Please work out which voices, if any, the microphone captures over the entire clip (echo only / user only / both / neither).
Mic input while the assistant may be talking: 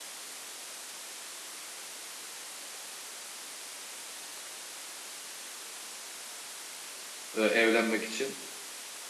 user only